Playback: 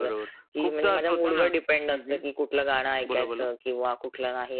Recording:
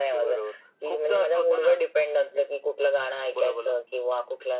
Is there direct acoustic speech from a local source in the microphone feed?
No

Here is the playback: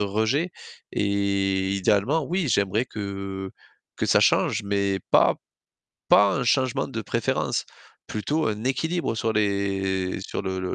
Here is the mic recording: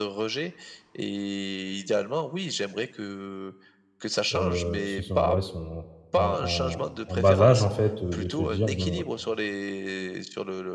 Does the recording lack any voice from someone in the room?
No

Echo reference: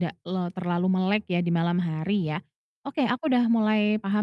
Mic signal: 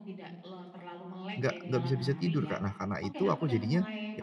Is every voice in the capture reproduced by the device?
No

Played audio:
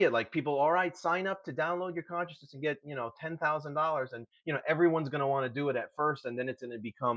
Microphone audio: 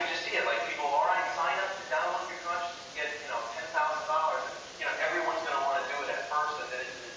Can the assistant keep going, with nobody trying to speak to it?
Yes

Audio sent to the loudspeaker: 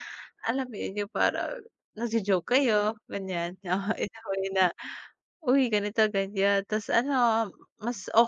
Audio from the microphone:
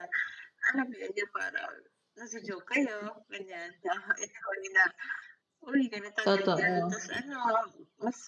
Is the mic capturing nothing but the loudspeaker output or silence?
No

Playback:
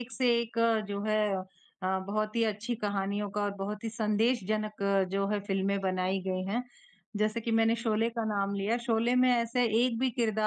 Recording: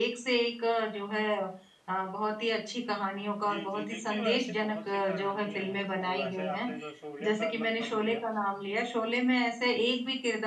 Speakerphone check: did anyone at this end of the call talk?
Yes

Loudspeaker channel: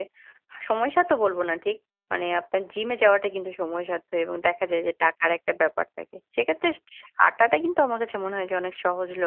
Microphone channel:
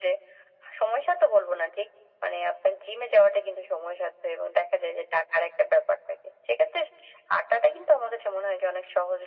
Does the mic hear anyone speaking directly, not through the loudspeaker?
No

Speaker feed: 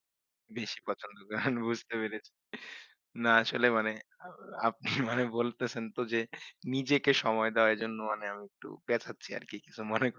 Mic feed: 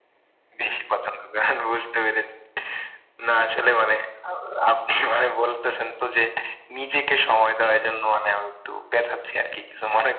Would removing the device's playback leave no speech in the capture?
Yes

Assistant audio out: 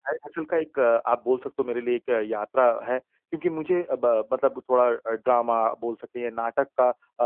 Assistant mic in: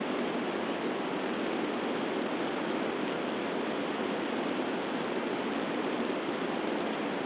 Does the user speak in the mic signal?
No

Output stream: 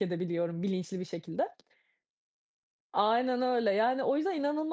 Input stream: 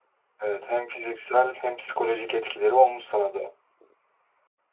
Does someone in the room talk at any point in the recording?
Yes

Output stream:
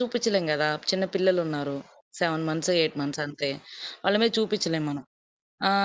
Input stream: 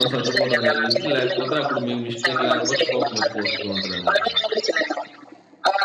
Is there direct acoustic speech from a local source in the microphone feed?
Yes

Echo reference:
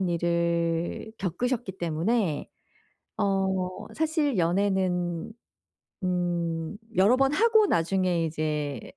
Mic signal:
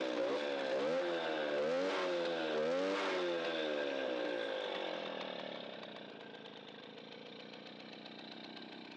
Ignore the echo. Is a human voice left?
No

